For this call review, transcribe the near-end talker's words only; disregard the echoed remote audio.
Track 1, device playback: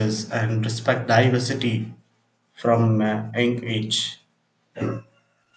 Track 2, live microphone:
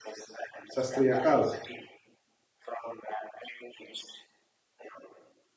Sastriyakal.

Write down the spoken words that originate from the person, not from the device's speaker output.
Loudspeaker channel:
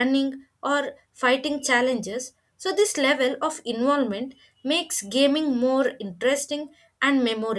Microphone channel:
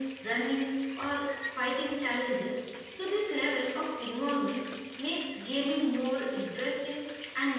none

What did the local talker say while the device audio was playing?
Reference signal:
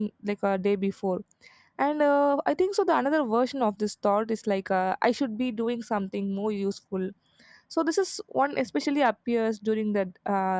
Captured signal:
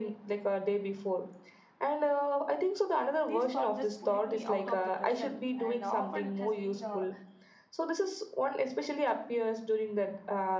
these thoughts just pulling me out of the present and often it has been uh,

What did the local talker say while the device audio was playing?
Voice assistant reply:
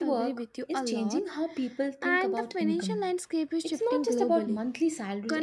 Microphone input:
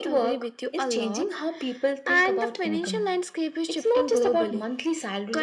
none

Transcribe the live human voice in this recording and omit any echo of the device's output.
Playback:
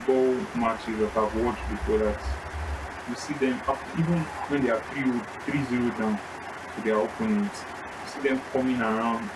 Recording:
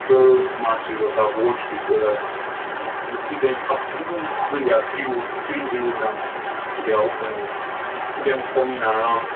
none

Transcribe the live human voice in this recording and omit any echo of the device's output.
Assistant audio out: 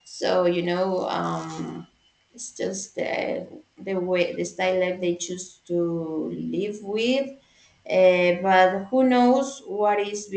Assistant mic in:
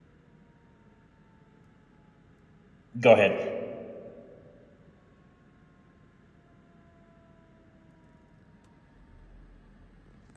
go ahead.

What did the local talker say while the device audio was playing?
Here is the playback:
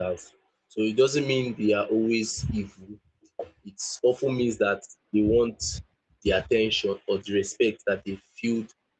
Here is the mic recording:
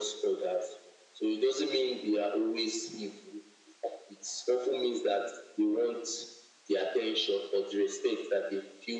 none

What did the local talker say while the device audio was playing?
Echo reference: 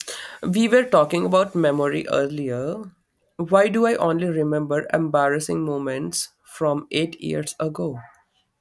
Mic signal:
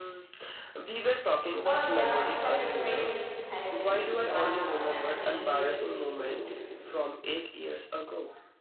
Oh, yeah, that your brain needs therapy, Wi Fi, and a, maybe a reboot.

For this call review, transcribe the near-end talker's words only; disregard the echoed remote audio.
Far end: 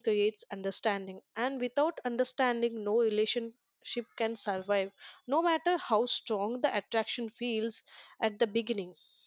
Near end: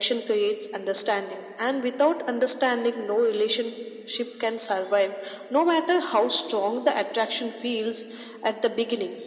none

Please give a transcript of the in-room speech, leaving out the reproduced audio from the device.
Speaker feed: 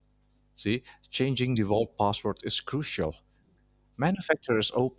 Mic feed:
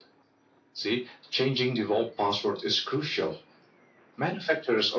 none

